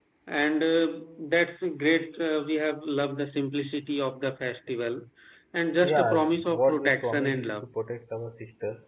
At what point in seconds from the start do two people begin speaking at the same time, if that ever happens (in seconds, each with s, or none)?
5.8 s